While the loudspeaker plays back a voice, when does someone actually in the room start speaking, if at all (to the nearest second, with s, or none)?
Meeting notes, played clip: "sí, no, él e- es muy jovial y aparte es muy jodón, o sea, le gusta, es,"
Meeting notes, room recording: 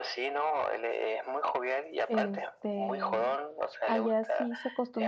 2 s